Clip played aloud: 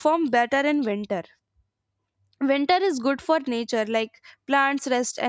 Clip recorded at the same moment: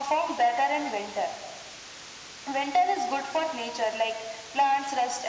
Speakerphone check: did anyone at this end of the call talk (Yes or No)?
No